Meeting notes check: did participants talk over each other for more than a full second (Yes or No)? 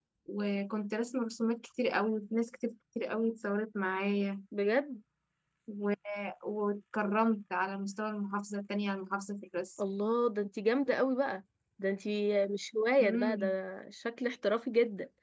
No